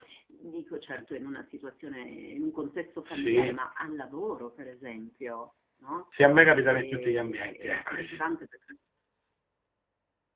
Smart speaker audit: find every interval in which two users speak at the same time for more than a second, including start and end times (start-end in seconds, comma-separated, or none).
6.7-8.2